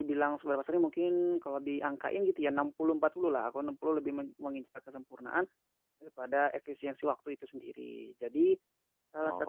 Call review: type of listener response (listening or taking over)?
listening